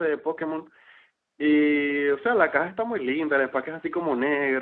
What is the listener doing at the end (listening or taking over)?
listening